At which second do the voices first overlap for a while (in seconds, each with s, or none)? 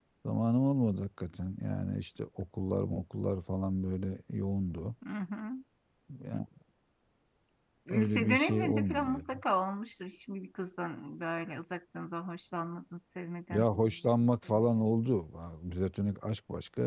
7.9 s